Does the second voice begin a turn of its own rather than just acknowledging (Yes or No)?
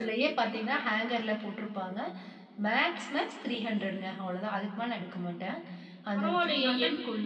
Yes